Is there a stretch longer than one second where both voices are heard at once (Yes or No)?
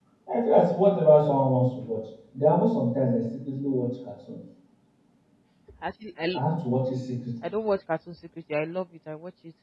No